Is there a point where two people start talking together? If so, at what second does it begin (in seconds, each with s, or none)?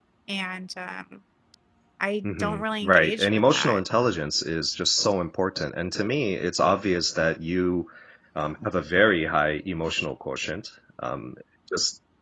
2.4 s